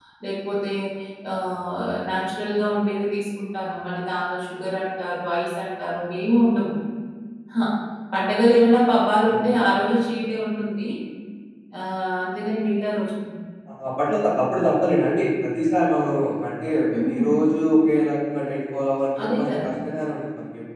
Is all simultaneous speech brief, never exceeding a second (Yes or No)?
Yes